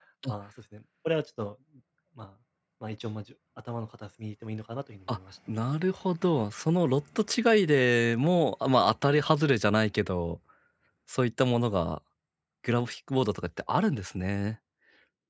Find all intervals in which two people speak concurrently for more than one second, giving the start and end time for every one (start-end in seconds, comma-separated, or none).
none